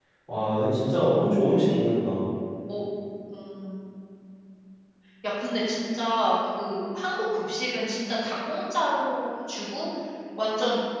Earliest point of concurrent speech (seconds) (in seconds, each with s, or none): none